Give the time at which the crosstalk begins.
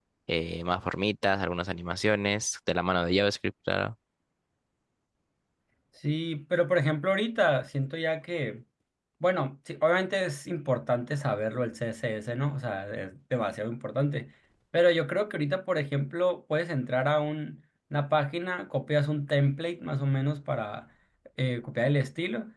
none

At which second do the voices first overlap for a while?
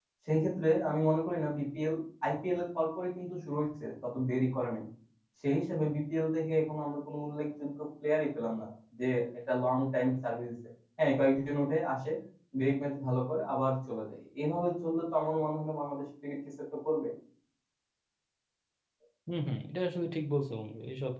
none

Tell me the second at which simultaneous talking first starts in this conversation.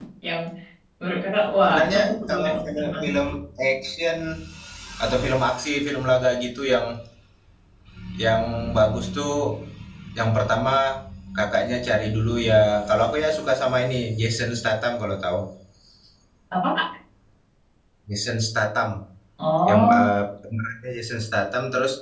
2 s

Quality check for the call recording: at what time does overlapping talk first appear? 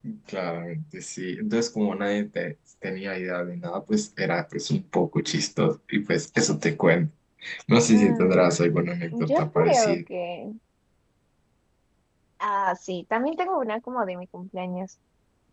8 s

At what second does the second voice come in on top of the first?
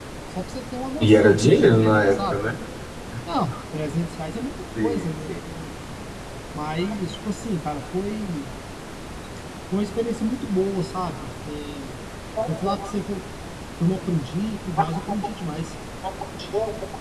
1 s

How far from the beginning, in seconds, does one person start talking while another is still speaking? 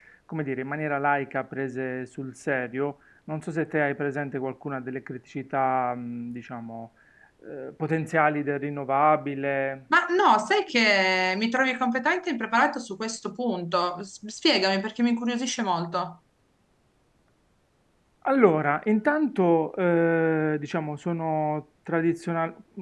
none

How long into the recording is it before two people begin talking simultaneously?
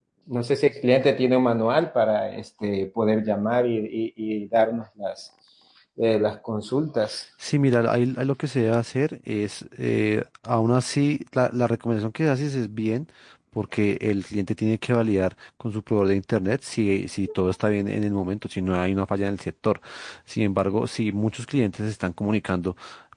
none

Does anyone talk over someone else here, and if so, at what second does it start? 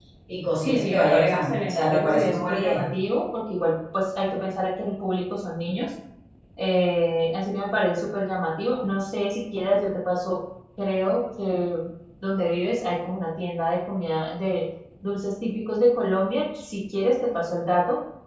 1 s

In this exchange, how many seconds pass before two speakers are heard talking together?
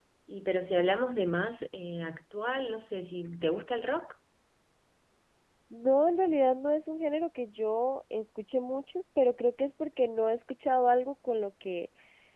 none

